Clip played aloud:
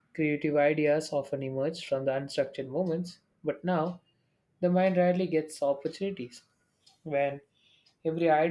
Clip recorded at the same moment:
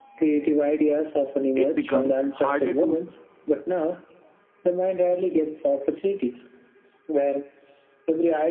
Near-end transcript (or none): it becomes harder to